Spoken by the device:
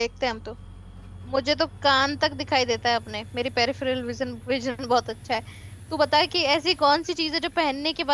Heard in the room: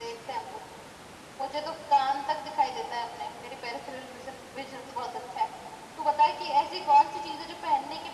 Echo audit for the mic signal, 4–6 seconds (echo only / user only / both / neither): echo only